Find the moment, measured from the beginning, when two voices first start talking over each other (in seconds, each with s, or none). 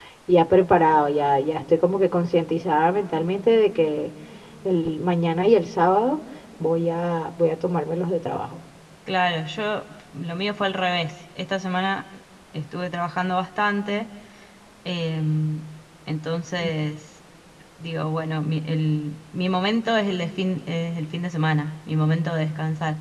none